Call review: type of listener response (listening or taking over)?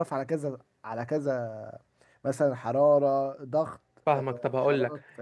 taking over